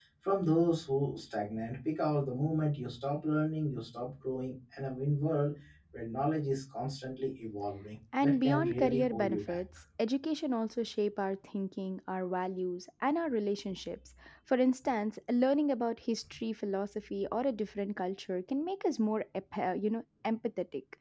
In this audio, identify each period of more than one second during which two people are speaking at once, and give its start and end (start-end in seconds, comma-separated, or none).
8.2-9.6